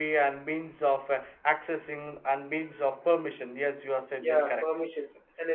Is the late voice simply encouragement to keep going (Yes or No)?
No